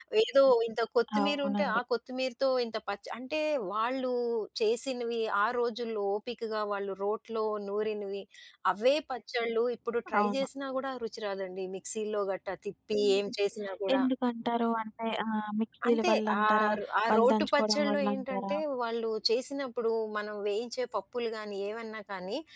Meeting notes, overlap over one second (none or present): present